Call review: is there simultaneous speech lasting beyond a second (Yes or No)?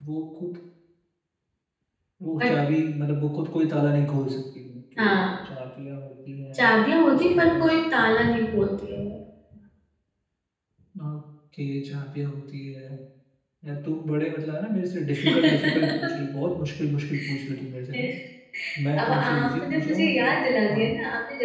Yes